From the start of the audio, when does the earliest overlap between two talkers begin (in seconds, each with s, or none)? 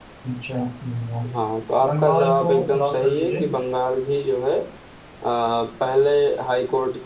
1.9 s